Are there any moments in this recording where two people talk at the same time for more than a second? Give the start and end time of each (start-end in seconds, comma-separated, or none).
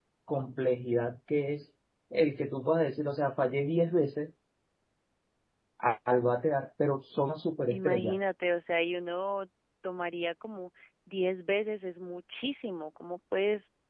none